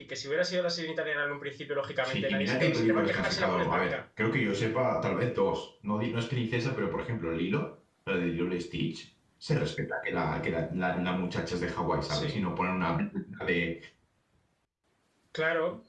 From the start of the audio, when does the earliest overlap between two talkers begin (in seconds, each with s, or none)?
2.0 s